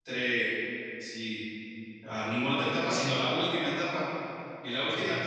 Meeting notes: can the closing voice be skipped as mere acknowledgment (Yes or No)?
Yes